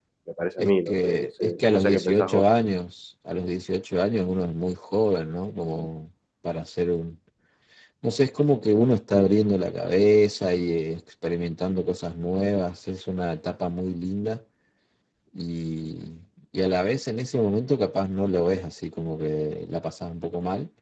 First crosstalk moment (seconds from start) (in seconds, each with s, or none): 0.6 s